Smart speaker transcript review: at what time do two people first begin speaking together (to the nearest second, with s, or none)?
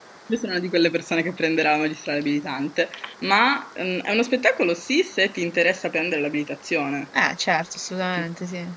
none